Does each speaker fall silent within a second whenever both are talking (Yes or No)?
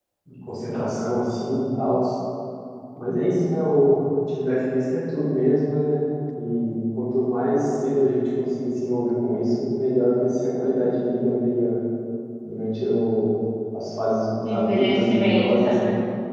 No